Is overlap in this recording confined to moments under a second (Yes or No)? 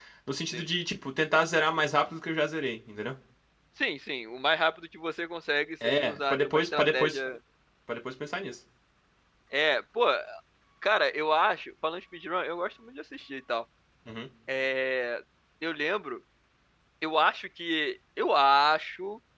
No